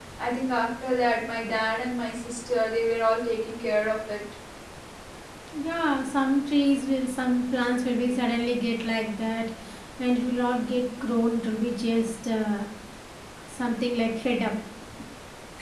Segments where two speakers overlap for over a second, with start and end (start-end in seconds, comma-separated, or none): none